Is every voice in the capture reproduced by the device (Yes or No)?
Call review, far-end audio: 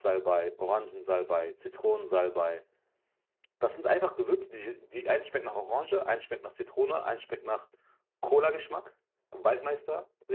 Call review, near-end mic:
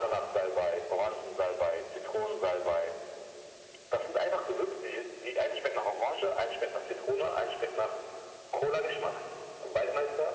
Yes